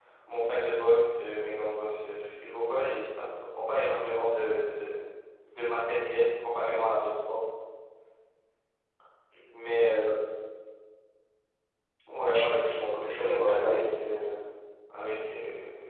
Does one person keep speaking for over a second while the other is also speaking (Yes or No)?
Yes